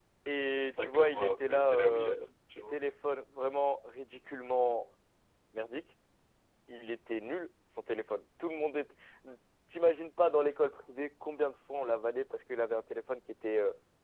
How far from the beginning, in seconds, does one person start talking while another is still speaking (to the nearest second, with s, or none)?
1 s